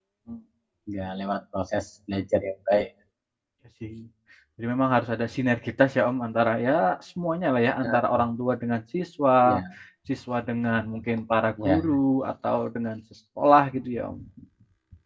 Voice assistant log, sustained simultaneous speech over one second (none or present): none